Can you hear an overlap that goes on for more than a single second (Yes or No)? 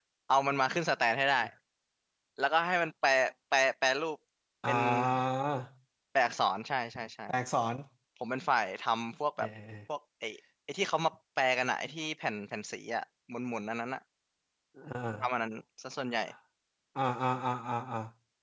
No